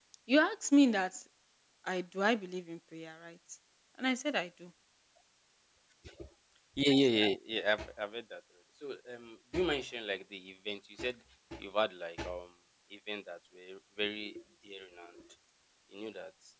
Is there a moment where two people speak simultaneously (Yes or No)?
No